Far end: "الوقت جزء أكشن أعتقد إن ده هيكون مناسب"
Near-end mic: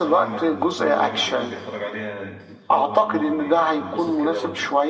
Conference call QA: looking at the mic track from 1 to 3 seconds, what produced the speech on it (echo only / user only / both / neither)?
both